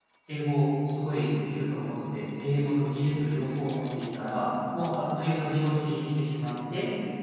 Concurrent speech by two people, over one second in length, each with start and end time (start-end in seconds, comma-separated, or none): none